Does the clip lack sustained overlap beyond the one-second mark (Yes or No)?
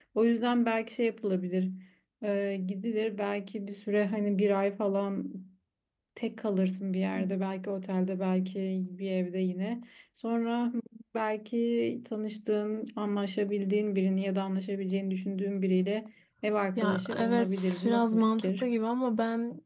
No